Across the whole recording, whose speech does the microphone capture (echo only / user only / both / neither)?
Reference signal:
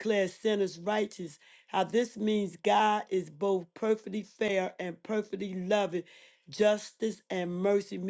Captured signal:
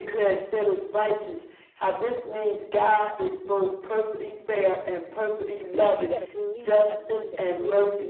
both